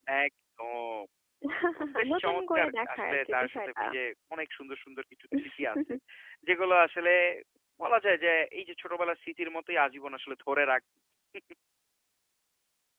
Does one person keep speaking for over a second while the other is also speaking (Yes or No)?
Yes